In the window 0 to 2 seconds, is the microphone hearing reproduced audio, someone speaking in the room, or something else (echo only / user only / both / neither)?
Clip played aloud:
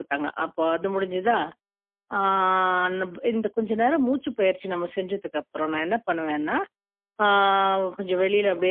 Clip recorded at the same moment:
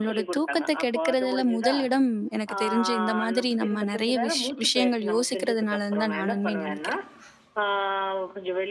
both